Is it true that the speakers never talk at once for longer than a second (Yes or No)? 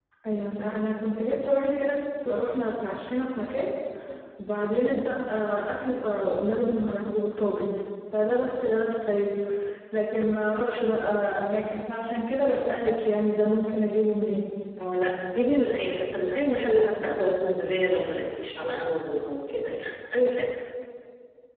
Yes